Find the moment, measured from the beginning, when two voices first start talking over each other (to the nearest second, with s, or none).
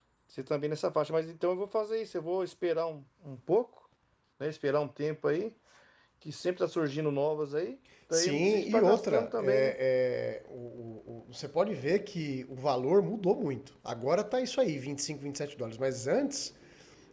8 s